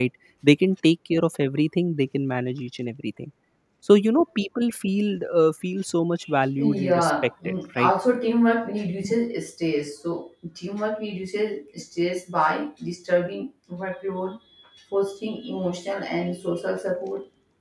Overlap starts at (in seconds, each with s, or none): 6.6 s